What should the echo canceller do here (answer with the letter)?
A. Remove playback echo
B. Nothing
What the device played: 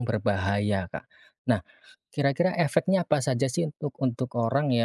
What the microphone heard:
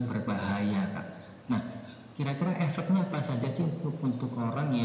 A